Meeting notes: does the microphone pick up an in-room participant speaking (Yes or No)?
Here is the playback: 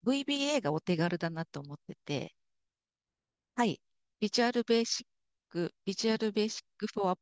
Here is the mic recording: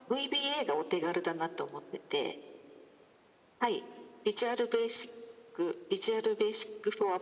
No